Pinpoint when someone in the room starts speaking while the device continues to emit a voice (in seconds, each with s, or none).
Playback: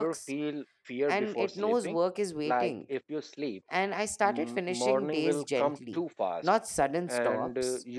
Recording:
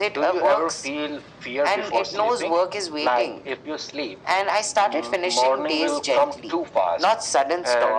none